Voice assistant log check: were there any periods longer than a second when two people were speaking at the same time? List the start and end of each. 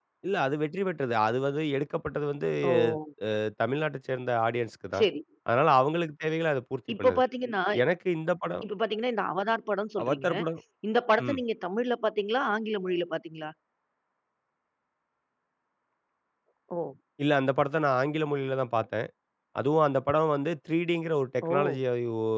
none

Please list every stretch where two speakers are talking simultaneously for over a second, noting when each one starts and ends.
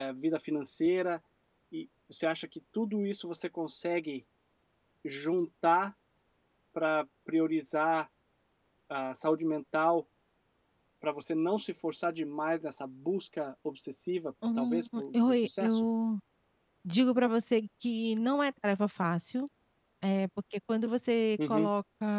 14.6-15.8

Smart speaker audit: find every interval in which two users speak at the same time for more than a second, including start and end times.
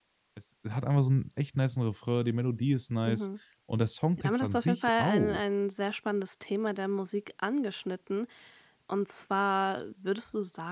4.2-5.4

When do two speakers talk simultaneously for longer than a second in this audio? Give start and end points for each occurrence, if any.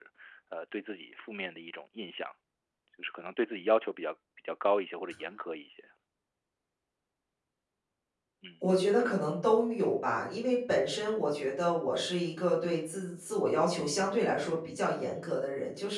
none

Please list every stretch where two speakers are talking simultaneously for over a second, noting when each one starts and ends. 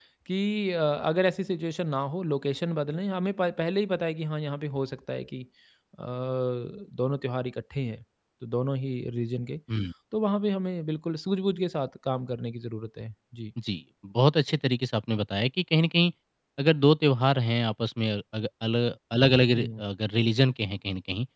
none

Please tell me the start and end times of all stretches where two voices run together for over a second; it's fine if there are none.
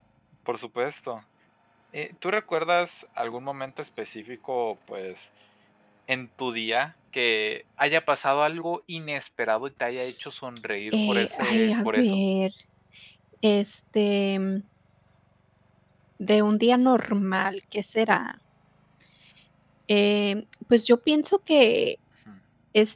10.9-12.2

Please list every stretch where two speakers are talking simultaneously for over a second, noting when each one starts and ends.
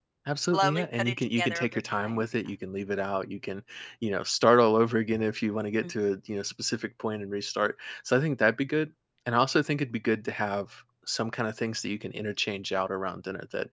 0.5-2.2

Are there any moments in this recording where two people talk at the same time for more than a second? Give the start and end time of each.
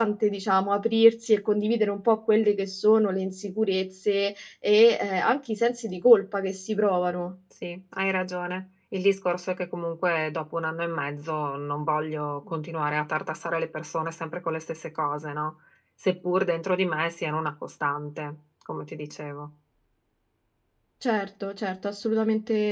none

